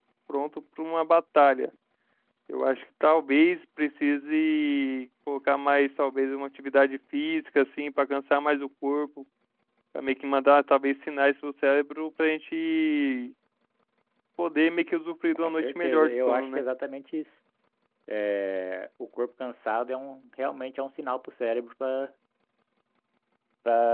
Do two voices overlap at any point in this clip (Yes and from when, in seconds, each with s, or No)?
Yes, from 15.4 s